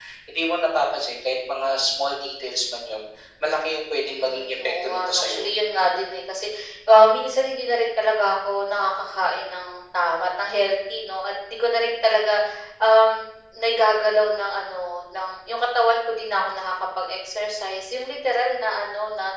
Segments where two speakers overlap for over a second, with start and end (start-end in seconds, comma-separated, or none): 4.0-5.5